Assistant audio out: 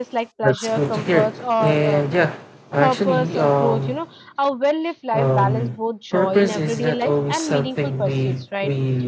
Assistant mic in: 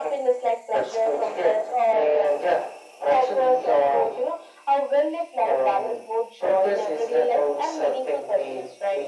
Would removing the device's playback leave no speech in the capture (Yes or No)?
Yes